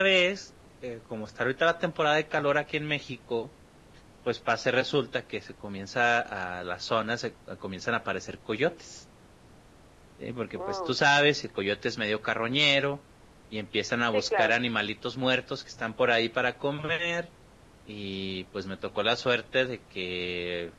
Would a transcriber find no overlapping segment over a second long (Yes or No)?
Yes